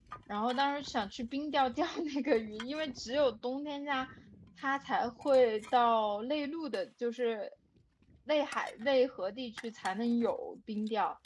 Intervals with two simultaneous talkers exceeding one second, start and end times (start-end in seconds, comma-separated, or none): none